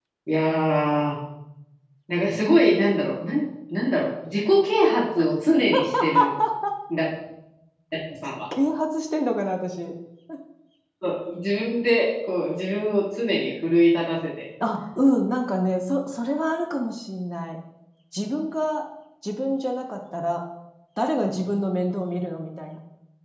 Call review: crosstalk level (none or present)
none